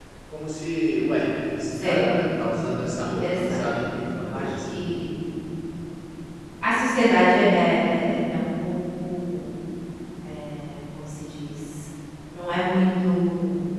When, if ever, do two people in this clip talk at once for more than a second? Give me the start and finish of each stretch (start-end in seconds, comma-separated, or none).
3.0-4.8